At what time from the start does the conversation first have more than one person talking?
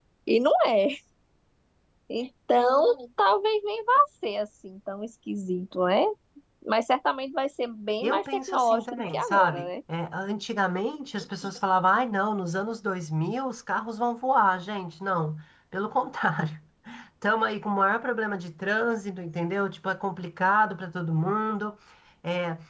8 s

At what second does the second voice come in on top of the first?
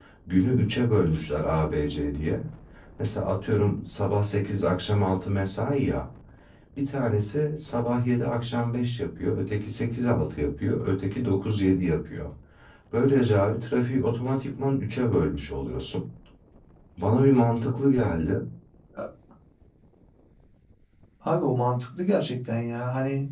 none

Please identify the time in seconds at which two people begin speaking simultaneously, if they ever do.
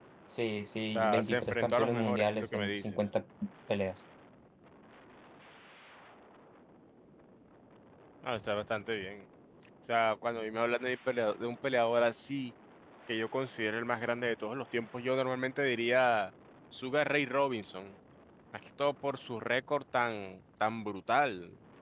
1 s

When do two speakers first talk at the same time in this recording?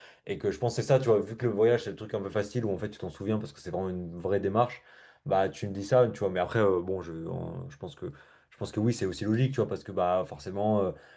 none

